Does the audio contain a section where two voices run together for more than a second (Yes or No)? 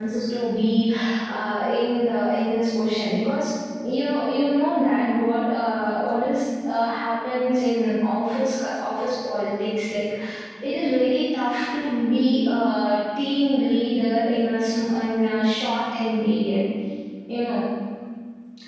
No